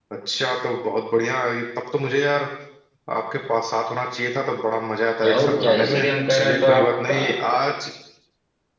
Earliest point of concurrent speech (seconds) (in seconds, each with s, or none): 5.2 s